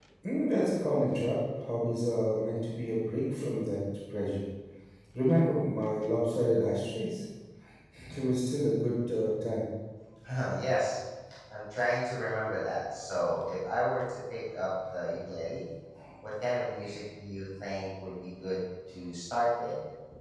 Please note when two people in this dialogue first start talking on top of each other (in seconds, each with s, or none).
none